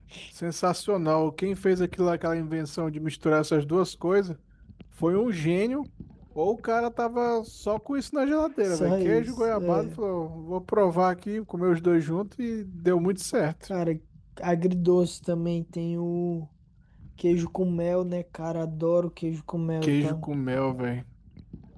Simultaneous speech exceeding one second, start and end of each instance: 8.6-10.0

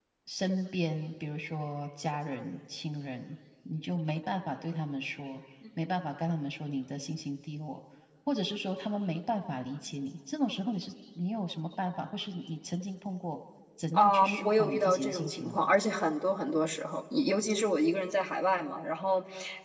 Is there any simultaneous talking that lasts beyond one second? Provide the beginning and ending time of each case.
13.9-15.7

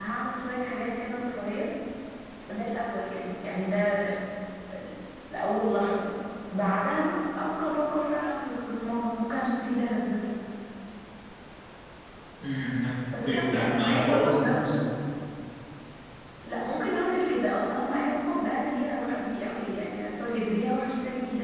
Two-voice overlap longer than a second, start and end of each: 13.2-14.8

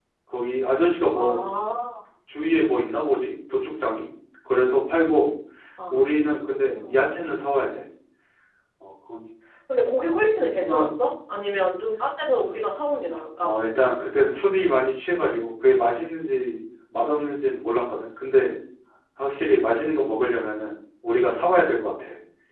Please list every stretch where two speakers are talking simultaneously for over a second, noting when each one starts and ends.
none

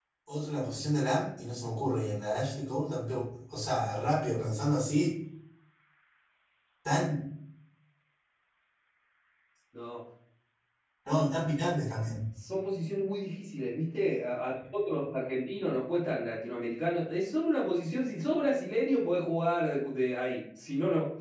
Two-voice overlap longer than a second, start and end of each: none

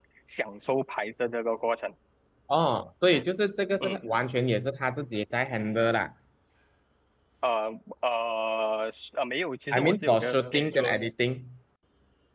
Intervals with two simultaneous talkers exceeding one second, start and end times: 9.7-11.0

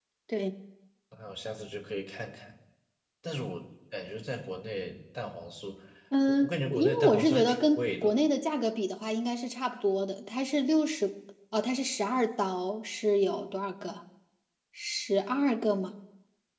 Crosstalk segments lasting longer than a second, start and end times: 6.3-8.1

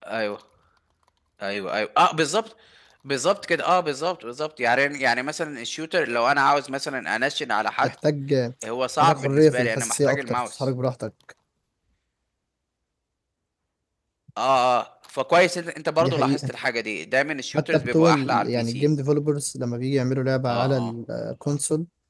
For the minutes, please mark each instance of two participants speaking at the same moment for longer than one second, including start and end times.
9.0-10.7, 17.6-18.8

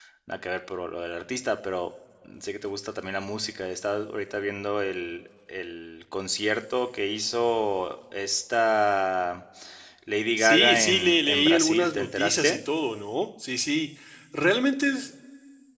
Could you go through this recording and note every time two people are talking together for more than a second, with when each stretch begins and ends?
10.4-12.6

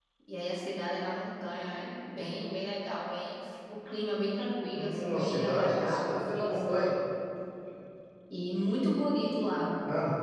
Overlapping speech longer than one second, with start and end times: 4.7-6.9

